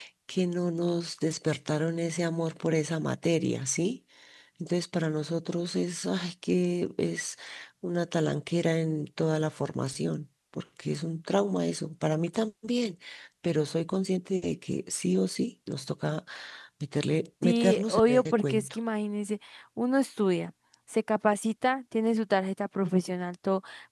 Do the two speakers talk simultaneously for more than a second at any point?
Yes, from 17.4 s

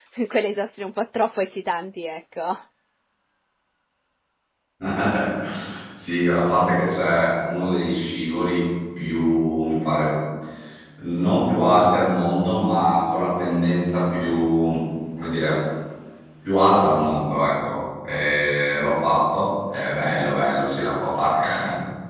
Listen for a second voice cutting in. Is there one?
No

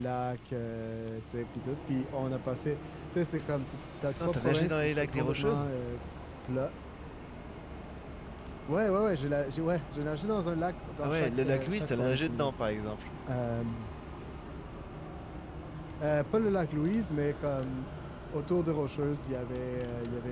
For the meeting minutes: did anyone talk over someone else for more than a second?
Yes, from 4.1 s

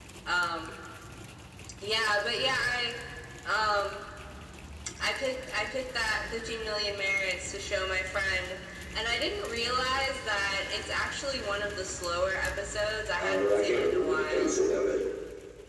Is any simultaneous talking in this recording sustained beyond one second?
Yes, from 13.2 s

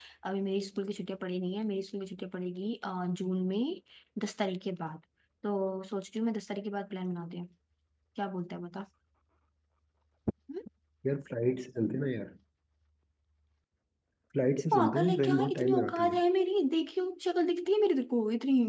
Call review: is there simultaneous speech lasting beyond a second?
Yes, from 14.7 s

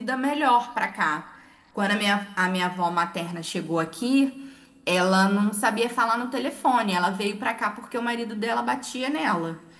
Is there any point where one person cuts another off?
No

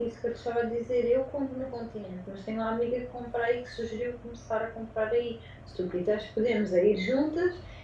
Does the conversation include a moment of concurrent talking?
No

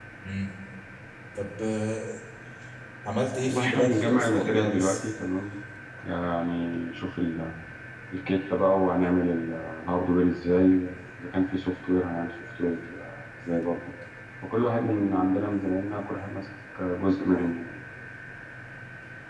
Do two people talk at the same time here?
Yes, from 3.4 s

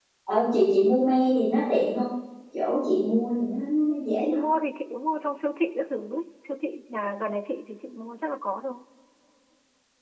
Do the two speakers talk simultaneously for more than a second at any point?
No

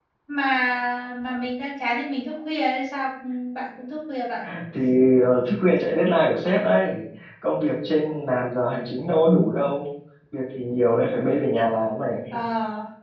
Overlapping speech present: No

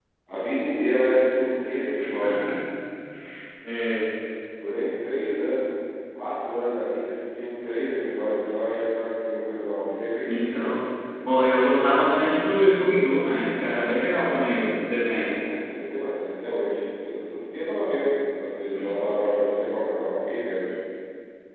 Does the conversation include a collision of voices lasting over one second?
No

